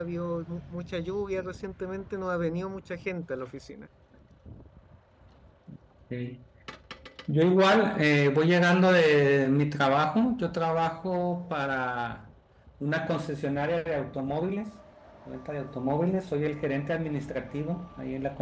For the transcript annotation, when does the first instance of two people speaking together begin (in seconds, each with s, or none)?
none